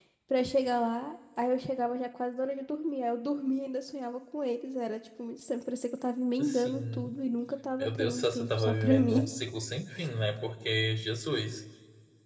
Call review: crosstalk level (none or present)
present